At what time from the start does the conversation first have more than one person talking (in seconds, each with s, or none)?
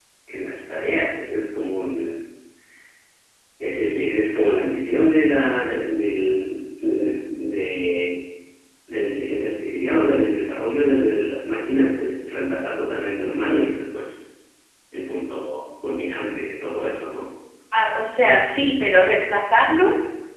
none